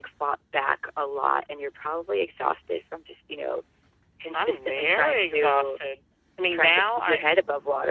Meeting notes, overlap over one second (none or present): present